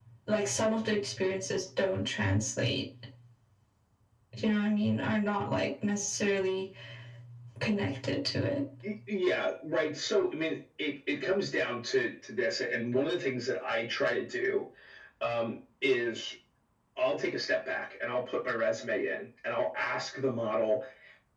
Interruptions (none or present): none